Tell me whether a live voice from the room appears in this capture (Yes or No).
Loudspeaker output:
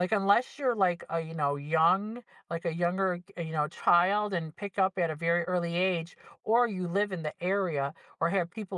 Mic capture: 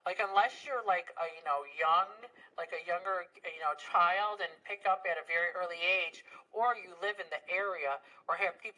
No